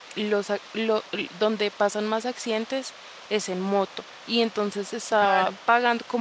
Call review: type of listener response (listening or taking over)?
listening